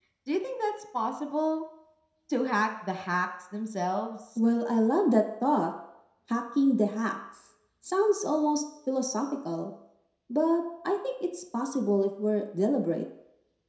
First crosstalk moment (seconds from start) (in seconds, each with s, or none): none